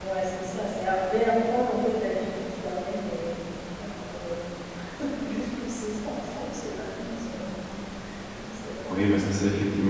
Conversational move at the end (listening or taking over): taking over